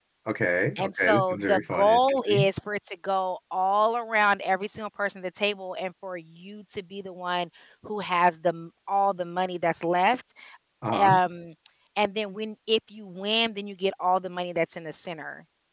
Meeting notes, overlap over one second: present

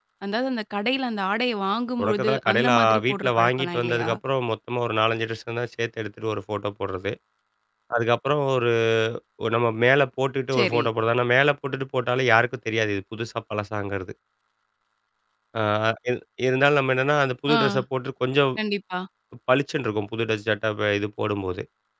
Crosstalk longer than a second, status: present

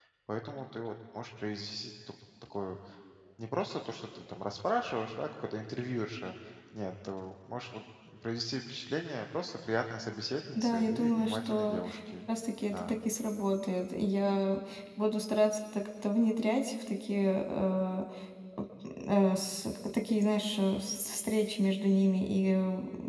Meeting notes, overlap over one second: present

